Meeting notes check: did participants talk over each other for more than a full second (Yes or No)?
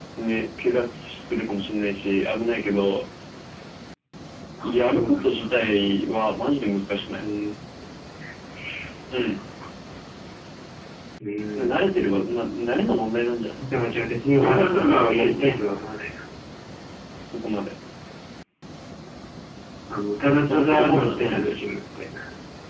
Yes